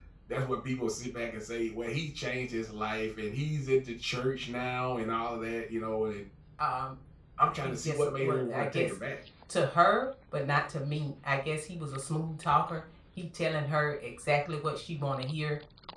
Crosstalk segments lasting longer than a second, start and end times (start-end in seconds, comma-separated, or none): 7.6-9.0